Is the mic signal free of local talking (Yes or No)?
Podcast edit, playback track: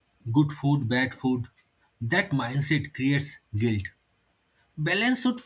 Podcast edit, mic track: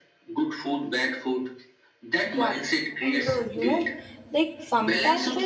No